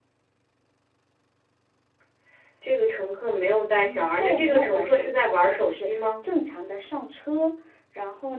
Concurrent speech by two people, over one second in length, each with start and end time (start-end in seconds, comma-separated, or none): 3.8-6.0